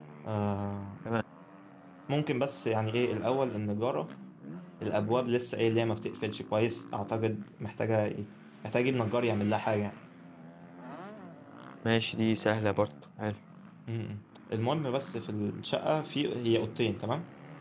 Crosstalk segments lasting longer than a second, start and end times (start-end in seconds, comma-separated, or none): none